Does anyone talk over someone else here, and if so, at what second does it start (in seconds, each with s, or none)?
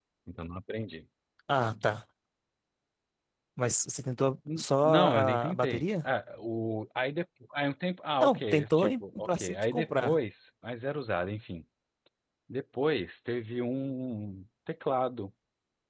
4.6 s